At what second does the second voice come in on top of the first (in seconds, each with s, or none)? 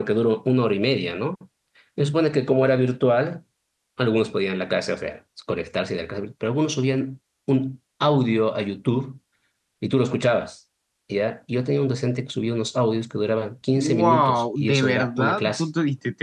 13.8 s